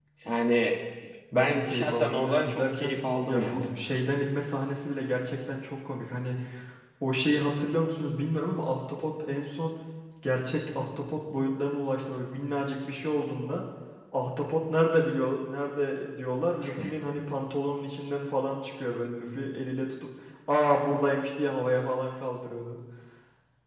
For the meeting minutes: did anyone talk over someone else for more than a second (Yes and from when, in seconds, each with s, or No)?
Yes, from 1.3 s